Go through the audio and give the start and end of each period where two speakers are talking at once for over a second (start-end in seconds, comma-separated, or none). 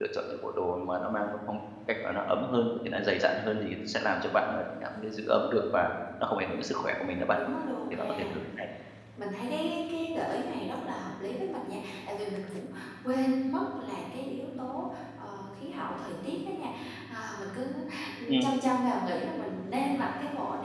none